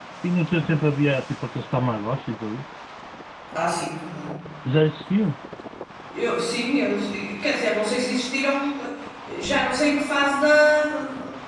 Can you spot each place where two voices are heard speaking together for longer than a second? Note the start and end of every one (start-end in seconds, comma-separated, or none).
none